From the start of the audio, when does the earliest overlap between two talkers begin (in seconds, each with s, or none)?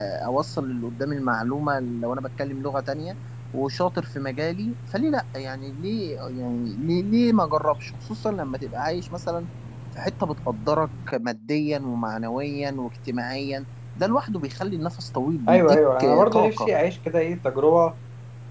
15.5 s